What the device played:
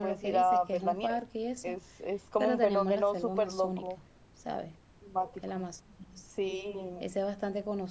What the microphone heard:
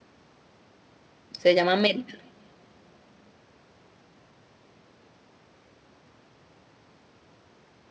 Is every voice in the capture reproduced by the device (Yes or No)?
No